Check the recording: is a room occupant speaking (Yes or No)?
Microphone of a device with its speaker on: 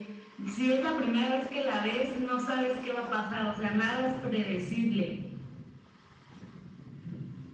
No